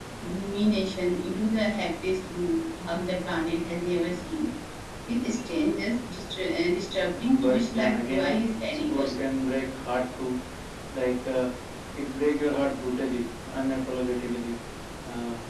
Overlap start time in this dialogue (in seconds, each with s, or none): 7.4 s